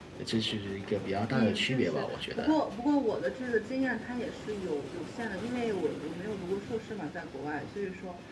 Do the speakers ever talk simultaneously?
Yes, from 1.3 s

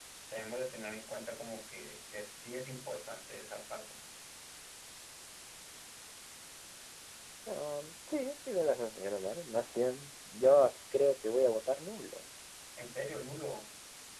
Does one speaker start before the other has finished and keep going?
No

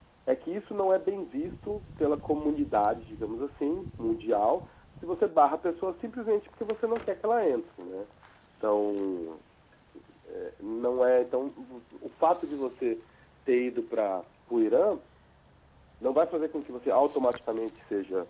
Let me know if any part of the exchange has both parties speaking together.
No

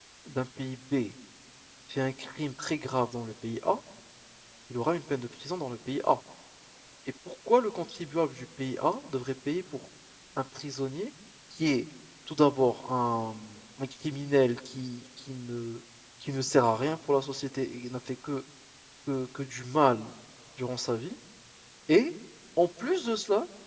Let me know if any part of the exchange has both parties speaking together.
No

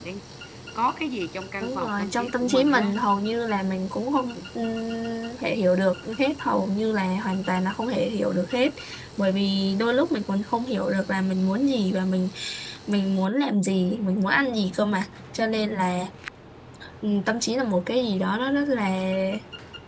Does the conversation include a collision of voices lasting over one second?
Yes, from 1.6 s

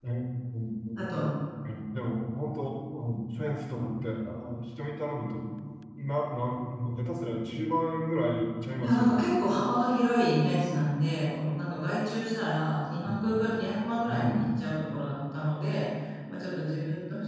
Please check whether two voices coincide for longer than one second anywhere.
No

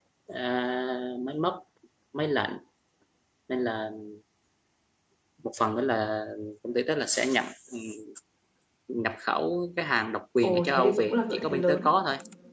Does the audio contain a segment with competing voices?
Yes, from 10.4 s

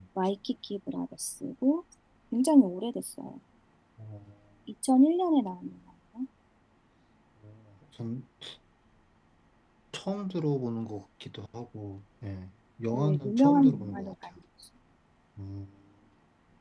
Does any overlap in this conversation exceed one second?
Yes, from 12.9 s

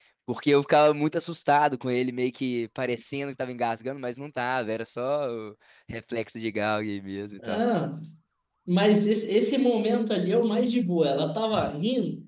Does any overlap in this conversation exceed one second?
No

